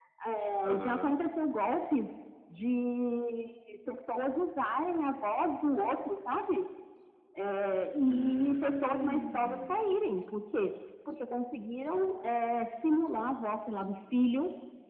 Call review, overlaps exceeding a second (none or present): present